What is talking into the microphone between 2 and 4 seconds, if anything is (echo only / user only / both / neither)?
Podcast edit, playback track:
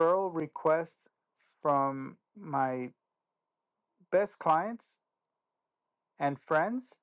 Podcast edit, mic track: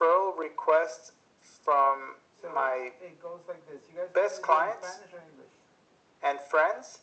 both